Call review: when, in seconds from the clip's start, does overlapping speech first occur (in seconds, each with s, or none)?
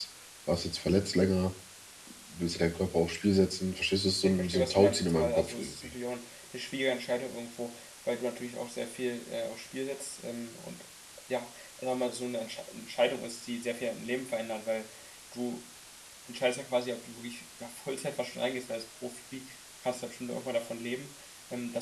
4.2 s